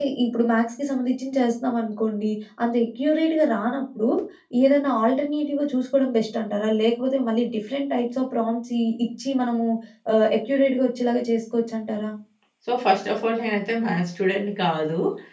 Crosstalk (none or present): none